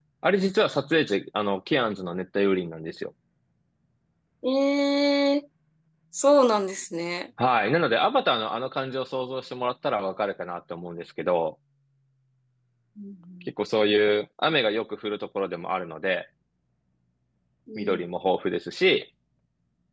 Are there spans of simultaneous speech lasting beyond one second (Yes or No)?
No